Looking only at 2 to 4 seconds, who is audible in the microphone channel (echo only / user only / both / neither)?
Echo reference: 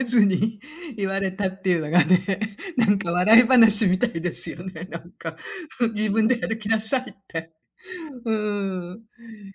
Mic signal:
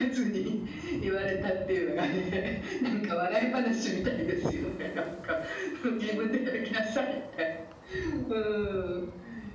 echo only